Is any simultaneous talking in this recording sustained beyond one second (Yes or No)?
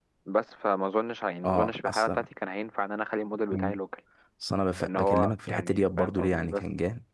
Yes